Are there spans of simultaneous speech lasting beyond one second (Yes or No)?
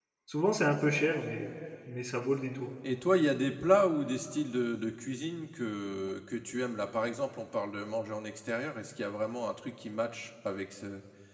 No